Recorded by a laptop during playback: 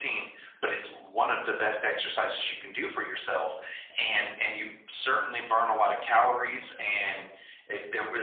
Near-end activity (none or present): none